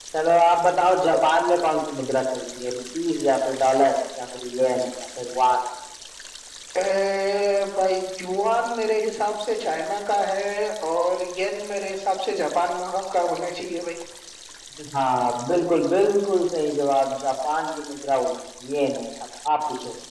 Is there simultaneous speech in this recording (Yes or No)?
No